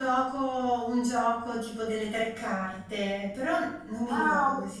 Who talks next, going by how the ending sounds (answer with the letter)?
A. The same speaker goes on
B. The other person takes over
B